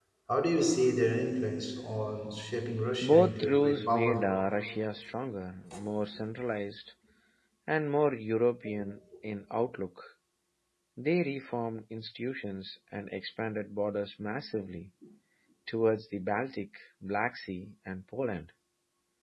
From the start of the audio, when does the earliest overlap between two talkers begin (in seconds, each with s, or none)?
3.0 s